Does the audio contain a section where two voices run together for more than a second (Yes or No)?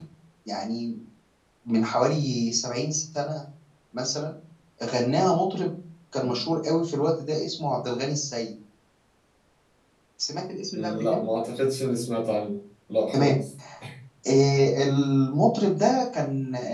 No